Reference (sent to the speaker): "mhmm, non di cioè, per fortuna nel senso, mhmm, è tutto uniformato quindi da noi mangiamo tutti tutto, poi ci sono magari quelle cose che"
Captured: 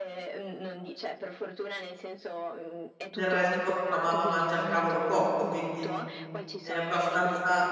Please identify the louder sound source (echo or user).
user